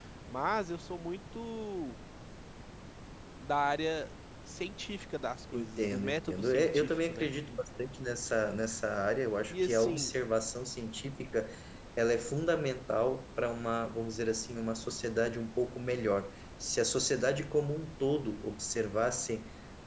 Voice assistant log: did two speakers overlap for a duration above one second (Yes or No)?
Yes